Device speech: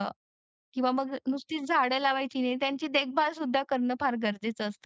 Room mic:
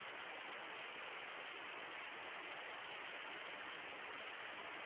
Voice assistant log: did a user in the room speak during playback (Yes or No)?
No